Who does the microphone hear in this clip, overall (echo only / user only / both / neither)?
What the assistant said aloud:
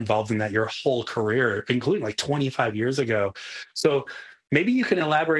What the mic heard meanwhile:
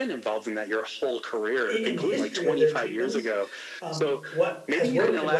both